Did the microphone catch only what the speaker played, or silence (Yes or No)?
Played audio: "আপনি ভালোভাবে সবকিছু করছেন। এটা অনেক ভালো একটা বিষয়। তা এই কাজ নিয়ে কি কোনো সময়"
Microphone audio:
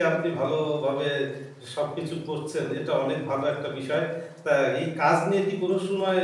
Yes